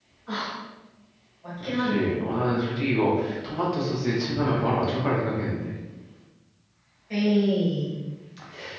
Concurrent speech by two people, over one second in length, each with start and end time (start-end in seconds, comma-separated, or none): none